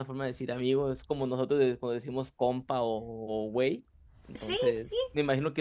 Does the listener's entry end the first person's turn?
No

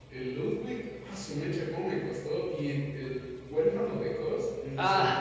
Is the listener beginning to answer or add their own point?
Yes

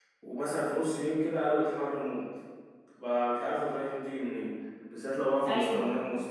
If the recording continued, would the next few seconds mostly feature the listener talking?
No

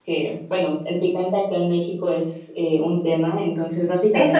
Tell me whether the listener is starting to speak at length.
Yes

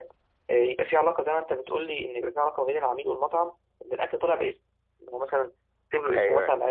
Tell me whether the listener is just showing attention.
Yes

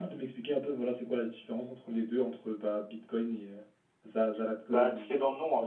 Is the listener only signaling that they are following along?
No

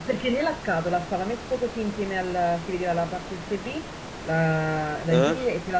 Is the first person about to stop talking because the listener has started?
No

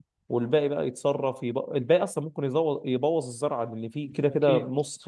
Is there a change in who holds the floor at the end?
No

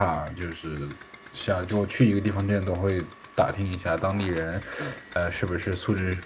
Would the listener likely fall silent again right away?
Yes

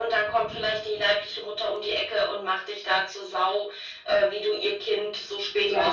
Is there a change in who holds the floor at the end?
Yes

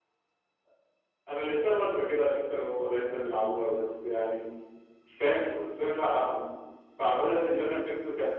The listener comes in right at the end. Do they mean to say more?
No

